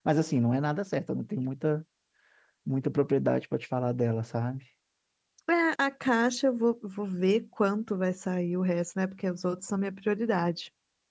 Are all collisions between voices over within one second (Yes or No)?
Yes